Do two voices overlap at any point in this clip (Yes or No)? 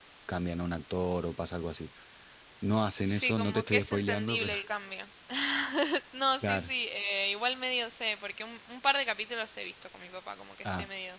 Yes